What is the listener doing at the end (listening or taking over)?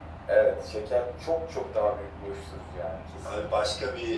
taking over